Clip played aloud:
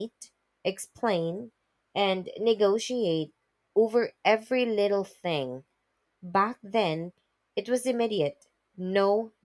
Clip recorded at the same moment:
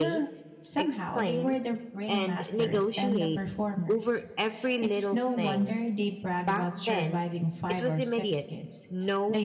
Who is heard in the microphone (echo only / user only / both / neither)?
both